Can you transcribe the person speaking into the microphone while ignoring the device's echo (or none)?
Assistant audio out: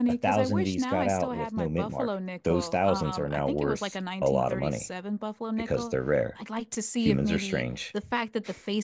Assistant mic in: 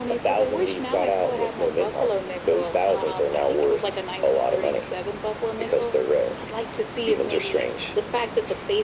none